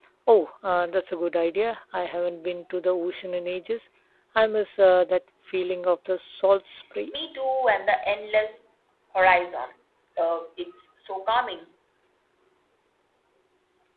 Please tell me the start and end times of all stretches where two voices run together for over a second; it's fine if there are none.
none

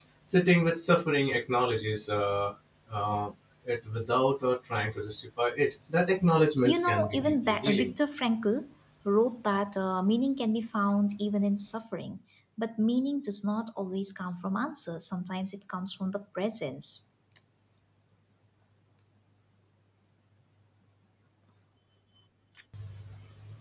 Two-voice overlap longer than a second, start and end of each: 6.6-7.9

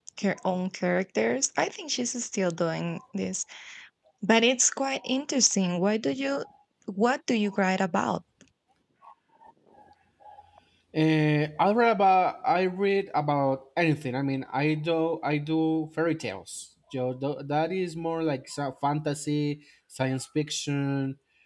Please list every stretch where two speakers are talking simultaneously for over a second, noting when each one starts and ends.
none

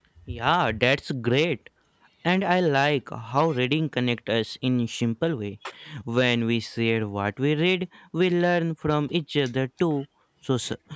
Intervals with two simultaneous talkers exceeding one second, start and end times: none

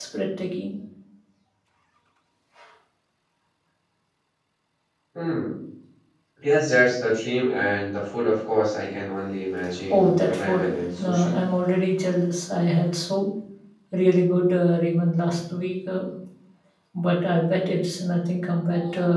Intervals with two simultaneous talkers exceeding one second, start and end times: 9.9-11.4

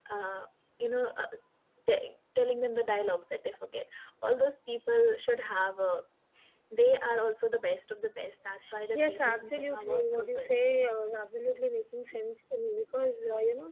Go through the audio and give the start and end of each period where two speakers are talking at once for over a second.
8.9-10.5

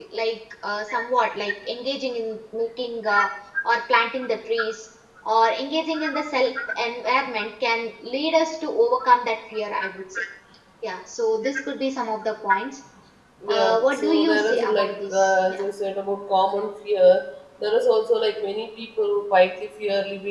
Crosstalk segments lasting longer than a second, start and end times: 13.5-15.6

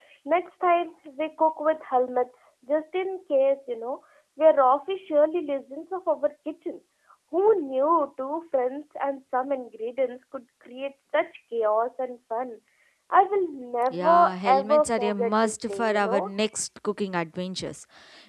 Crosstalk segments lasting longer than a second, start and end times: 13.9-16.3

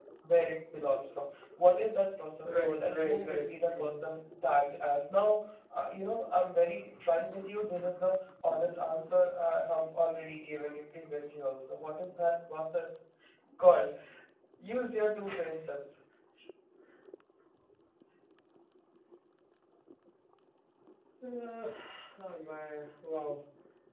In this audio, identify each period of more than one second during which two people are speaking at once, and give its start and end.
2.4-4.0

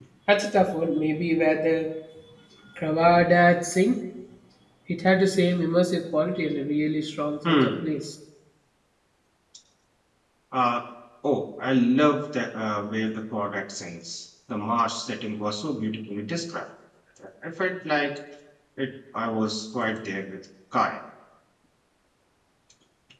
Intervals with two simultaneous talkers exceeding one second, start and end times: none

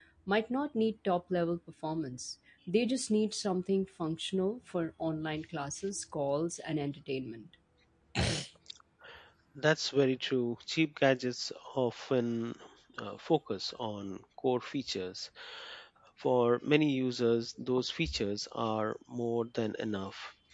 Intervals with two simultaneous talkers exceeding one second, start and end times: none

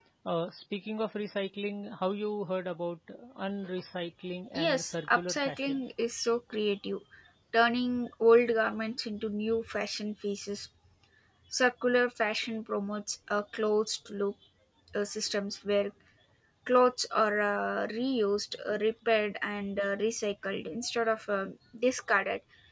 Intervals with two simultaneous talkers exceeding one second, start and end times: 4.6-5.8

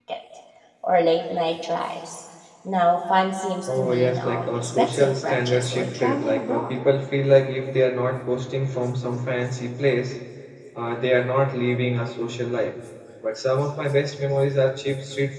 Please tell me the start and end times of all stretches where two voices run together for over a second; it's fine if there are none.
3.7-6.8

